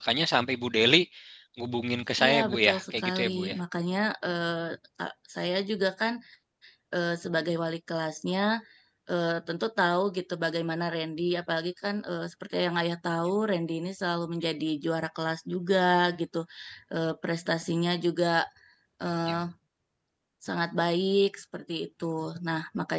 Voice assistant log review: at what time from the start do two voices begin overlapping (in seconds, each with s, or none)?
2.2 s